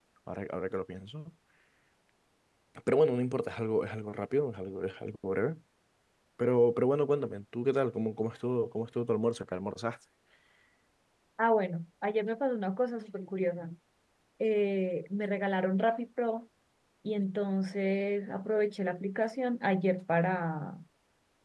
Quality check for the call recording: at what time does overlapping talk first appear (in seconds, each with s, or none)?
none